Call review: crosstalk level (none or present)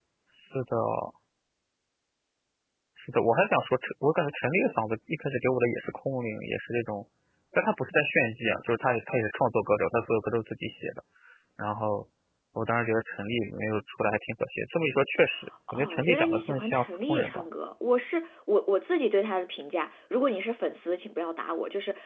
present